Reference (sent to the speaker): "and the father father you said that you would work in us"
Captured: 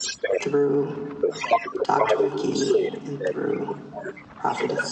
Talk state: both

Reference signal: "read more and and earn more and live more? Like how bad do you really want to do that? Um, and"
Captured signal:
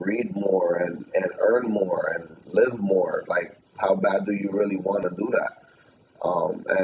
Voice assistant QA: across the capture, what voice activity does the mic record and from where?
echo only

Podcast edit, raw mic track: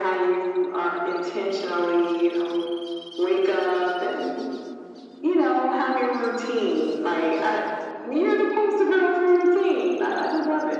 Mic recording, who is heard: echo only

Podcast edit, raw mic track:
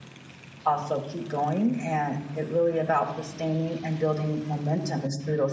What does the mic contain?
user only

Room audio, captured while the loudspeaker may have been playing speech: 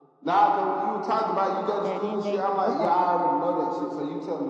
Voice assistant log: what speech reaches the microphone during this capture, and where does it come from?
both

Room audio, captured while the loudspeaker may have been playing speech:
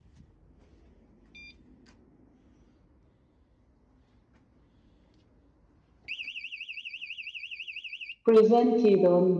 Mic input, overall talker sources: user only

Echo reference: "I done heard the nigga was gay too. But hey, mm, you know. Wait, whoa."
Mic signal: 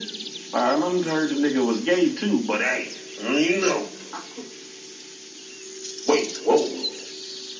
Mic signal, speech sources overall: echo only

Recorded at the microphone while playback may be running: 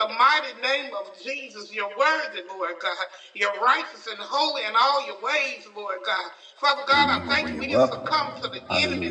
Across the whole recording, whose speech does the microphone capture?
both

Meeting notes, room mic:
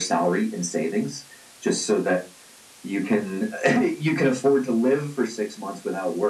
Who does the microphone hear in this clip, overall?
echo only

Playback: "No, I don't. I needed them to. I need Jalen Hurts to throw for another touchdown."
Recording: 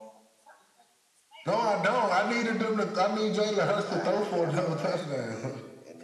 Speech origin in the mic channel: both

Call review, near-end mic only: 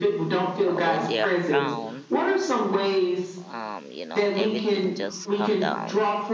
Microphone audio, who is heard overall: both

